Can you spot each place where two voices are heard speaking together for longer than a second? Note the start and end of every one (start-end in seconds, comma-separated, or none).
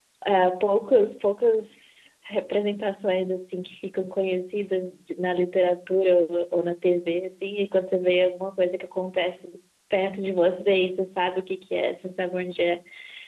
none